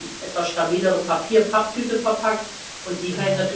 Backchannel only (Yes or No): Yes